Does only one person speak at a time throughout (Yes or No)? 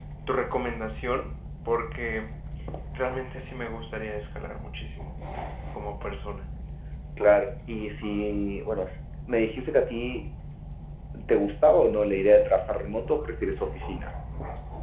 Yes